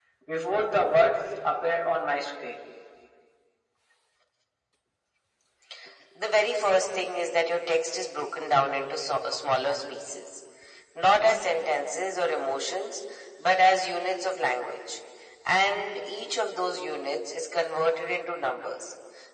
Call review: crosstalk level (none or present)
none